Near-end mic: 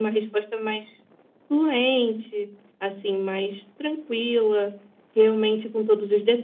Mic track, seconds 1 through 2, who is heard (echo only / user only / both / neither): echo only